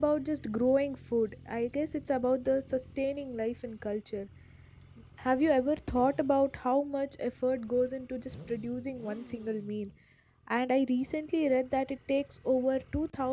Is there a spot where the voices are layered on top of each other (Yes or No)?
No